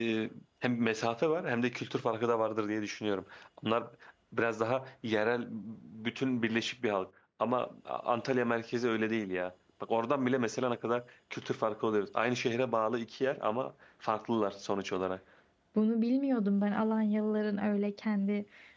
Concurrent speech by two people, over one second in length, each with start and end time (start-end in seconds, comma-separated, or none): none